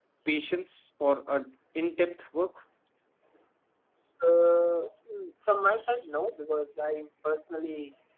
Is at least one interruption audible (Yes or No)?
No